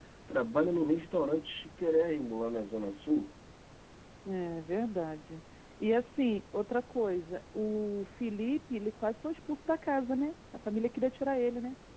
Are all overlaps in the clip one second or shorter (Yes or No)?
Yes